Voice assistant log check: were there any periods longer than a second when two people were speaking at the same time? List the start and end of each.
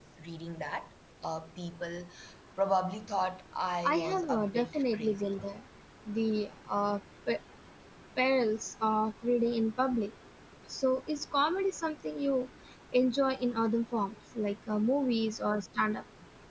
3.8-5.3

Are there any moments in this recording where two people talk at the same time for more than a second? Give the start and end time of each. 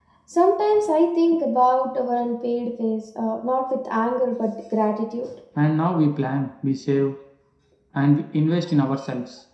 none

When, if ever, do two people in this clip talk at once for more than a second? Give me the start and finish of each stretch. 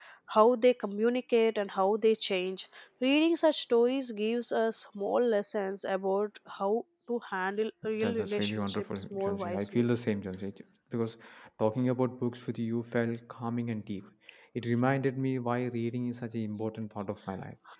8.0-9.9

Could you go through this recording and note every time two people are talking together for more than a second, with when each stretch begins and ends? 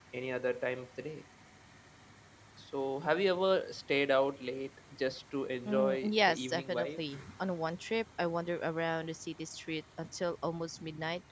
5.6-7.0

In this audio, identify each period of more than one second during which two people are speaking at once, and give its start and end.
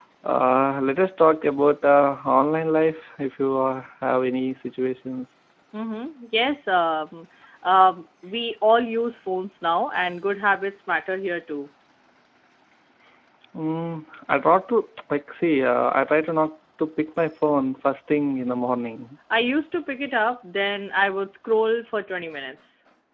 none

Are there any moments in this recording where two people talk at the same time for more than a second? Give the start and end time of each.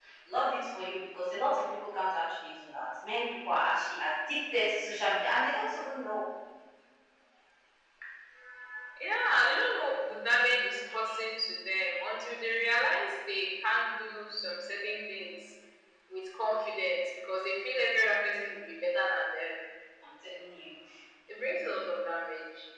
none

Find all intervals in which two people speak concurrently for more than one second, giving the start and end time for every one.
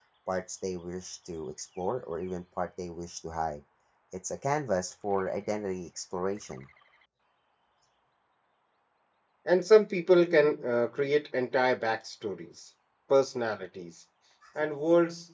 none

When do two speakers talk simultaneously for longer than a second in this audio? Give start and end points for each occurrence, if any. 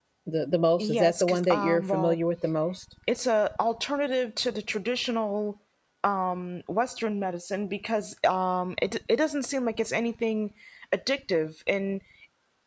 0.8-2.2

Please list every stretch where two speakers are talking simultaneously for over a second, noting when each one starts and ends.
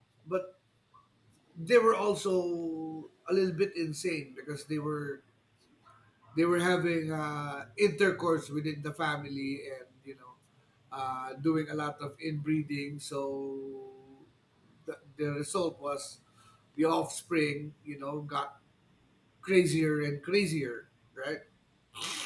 none

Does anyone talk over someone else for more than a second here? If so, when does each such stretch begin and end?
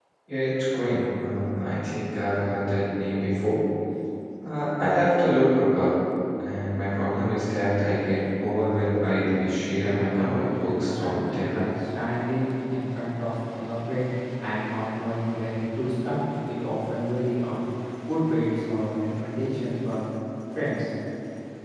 9.8-11.6

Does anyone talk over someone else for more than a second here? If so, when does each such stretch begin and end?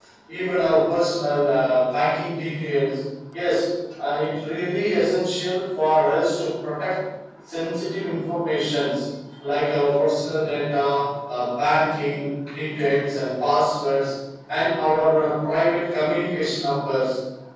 none

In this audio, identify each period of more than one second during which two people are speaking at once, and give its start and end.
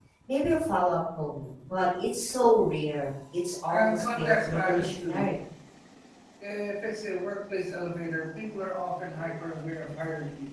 3.7-5.3

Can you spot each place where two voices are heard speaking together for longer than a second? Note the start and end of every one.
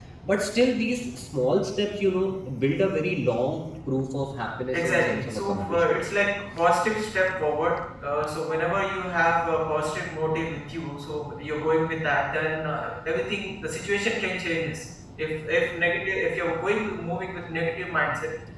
4.7-6.0

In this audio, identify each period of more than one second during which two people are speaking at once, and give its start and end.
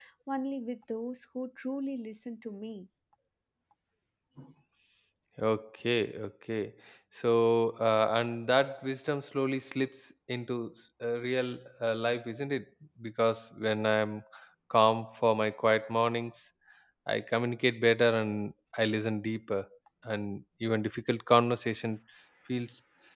none

